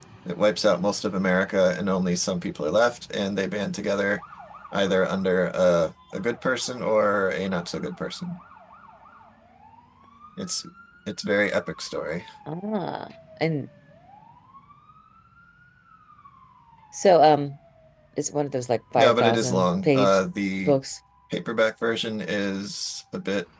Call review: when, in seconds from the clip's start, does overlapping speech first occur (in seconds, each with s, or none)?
19.0 s